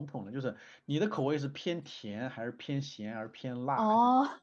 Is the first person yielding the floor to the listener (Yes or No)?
Yes